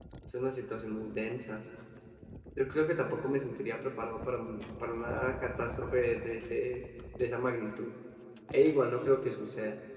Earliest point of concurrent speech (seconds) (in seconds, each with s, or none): none